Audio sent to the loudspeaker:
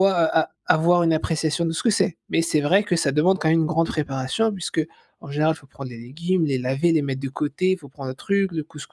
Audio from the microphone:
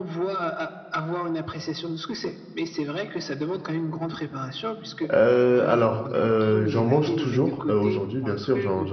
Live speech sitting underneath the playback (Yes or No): No